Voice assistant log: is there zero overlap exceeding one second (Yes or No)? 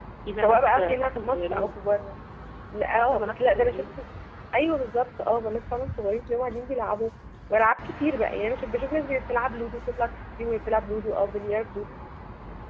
No